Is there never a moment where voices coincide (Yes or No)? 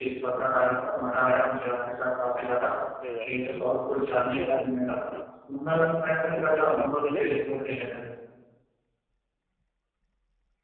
No